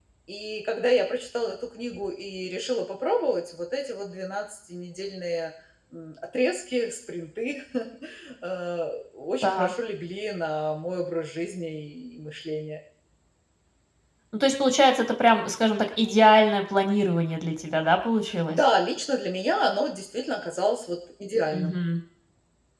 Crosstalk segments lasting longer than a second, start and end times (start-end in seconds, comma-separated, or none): none